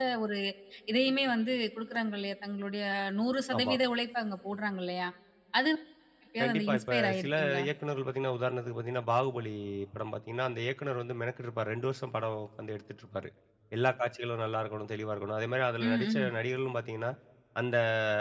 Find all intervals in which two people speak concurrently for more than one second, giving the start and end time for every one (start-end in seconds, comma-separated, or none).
6.4-7.6